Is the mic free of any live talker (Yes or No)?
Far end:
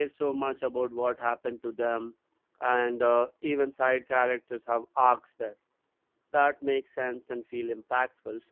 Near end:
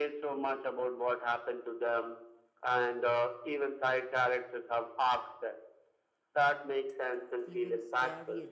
No